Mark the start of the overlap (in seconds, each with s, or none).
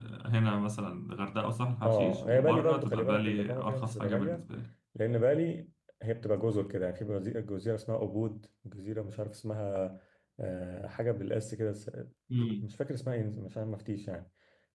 1.9 s